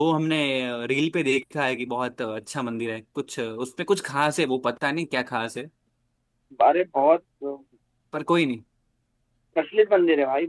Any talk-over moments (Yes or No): No